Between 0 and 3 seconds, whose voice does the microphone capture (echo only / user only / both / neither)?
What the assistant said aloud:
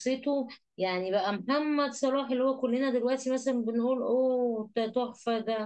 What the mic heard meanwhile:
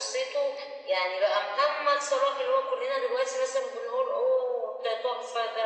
echo only